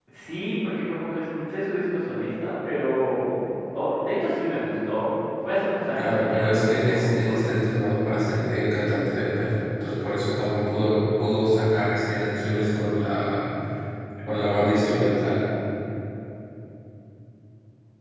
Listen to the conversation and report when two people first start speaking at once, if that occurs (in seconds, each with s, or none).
6.0 s